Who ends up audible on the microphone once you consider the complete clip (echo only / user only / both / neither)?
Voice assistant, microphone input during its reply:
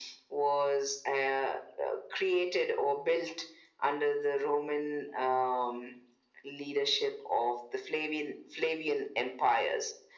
echo only